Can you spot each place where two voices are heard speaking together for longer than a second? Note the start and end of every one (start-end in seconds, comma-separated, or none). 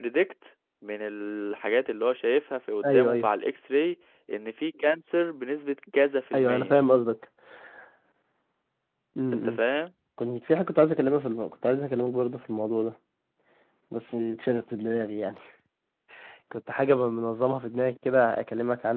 none